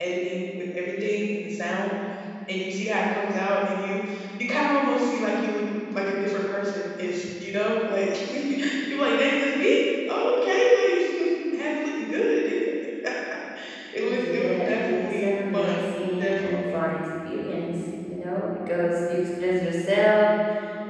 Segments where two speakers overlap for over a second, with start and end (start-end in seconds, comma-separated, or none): 14.1-16.8